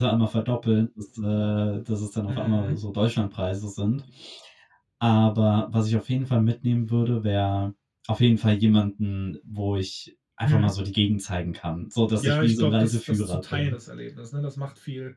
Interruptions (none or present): present